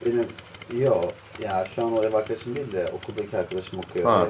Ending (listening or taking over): taking over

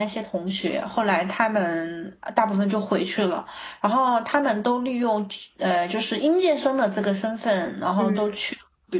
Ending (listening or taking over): listening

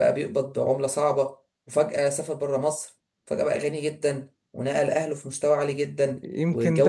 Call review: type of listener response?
taking over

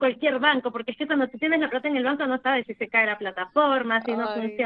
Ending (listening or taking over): listening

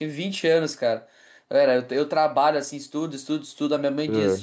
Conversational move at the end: listening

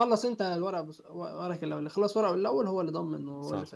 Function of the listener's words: taking over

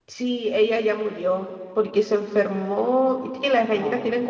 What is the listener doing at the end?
listening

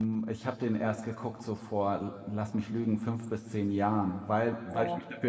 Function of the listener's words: listening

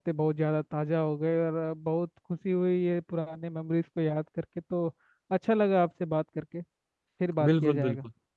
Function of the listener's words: taking over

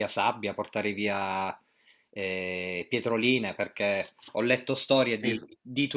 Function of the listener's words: listening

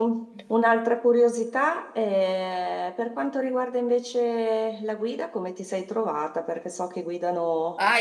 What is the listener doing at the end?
taking over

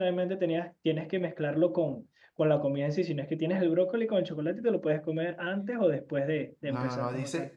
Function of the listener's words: taking over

